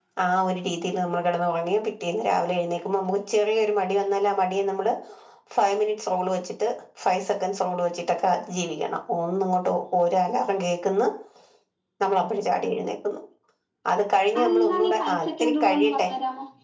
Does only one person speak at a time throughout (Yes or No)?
No